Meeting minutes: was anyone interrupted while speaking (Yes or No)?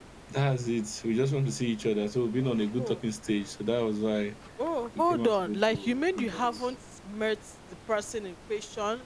Yes